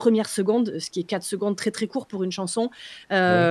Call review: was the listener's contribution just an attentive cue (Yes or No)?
Yes